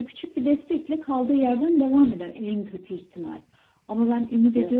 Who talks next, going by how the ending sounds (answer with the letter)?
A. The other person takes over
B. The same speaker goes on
B